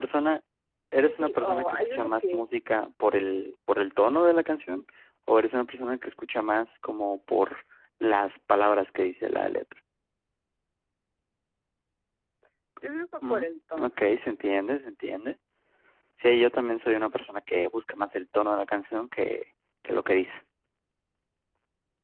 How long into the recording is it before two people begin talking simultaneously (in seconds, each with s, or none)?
1.0 s